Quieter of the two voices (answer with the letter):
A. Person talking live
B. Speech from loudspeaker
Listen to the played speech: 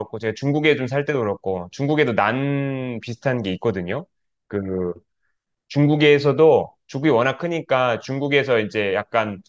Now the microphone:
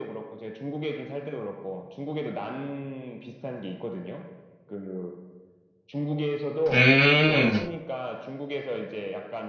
B